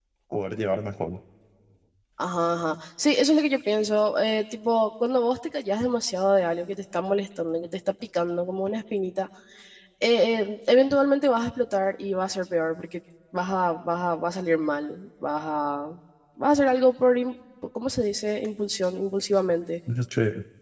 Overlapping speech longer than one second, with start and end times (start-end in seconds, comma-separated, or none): none